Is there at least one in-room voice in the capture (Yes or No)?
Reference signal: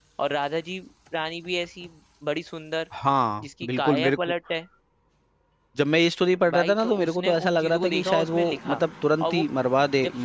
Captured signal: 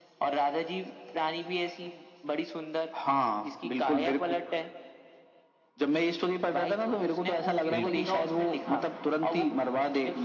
Yes